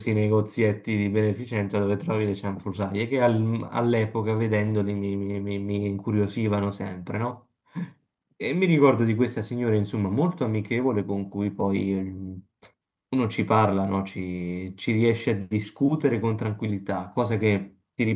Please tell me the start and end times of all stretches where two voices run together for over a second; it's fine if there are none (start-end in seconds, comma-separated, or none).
none